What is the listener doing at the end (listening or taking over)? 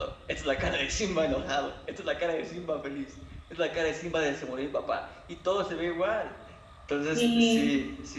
listening